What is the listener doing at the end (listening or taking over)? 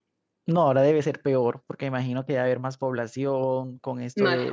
listening